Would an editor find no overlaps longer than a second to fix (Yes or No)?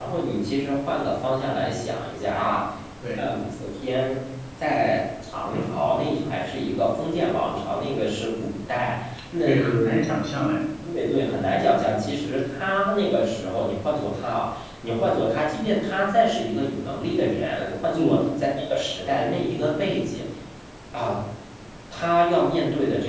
Yes